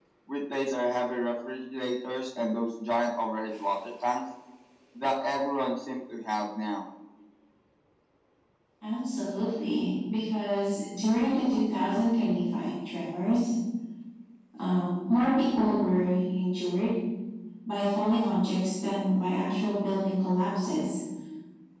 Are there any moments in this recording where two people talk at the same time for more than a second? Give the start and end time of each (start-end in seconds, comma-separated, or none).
none